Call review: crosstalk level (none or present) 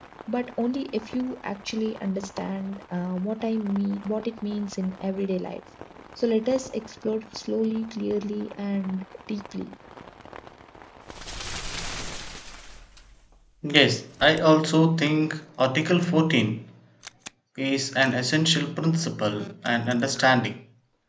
none